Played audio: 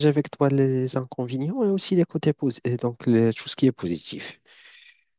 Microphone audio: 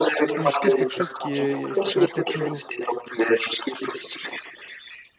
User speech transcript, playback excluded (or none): ou est-ce que c'est quelque chose qui est qui se répète toujours?